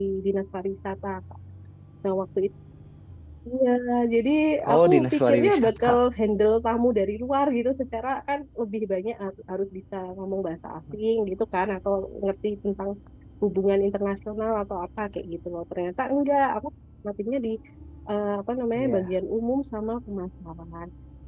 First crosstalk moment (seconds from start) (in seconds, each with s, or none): 4.7 s